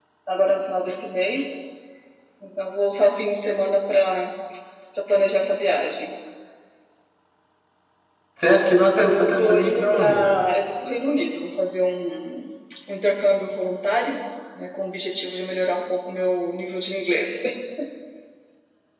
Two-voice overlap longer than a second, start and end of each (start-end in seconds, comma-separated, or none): 9.0-10.3